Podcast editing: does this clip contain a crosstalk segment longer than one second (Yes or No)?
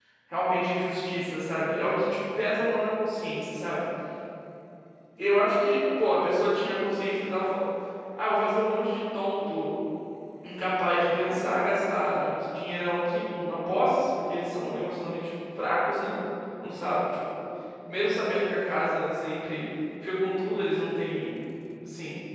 No